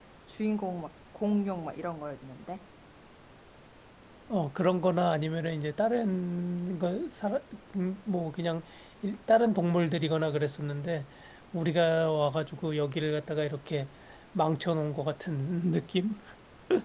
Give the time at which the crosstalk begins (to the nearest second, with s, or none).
none